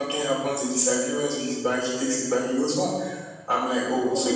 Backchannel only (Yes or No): Yes